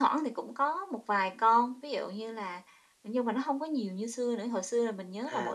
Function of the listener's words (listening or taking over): listening